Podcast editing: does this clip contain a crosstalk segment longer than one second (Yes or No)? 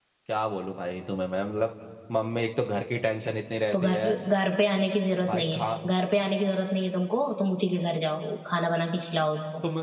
No